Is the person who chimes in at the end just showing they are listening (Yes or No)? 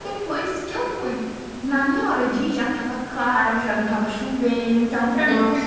No